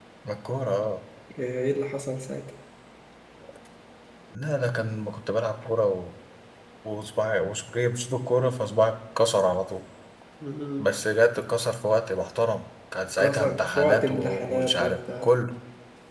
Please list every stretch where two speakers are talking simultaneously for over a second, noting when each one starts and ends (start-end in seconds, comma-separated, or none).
13.2-15.3